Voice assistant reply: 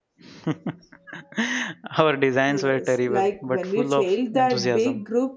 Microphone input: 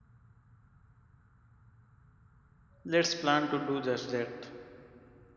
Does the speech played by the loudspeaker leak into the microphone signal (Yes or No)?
No